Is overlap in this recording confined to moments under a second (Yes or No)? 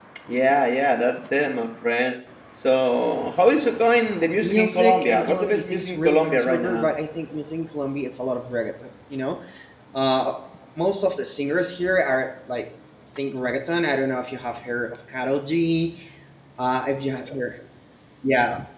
No